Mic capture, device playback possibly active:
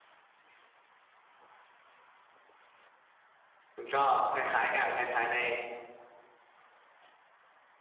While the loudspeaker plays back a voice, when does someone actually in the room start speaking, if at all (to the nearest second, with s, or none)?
4 s